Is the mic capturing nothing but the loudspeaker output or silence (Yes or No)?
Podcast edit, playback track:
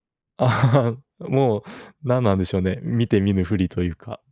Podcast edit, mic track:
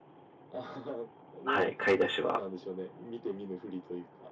No